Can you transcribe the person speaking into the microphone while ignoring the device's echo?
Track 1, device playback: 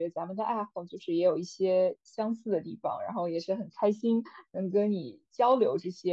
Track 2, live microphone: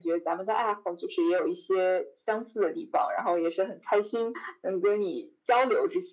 none

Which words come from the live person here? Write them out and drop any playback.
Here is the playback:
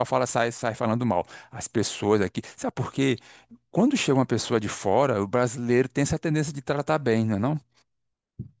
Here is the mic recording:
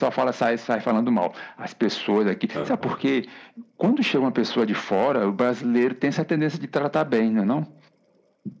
É. hum.

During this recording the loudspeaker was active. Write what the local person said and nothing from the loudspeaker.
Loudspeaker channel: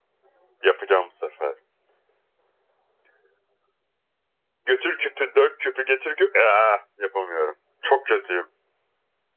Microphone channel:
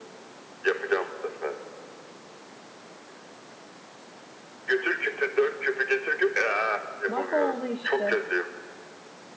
Bak oldu işte.

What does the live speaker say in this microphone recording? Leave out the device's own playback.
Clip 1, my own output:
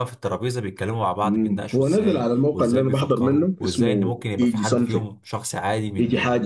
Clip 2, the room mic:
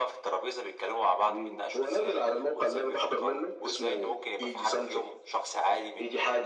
none

